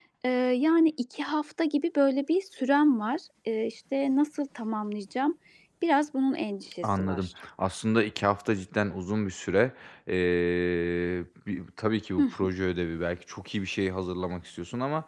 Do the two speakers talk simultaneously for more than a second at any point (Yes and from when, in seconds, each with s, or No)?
No